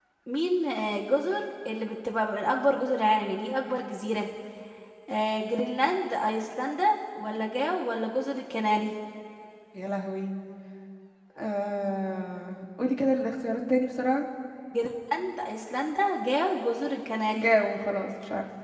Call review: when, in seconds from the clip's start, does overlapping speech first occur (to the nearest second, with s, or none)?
none